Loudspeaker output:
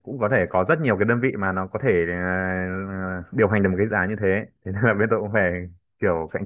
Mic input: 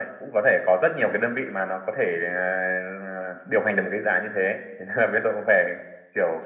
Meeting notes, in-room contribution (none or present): none